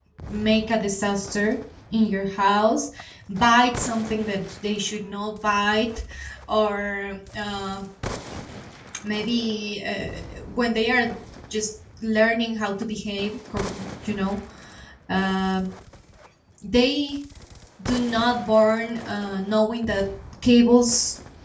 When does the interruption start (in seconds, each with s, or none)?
none